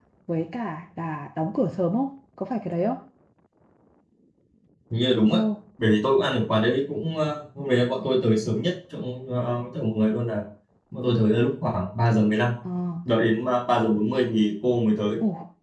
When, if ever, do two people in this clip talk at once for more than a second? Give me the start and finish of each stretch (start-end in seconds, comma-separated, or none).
none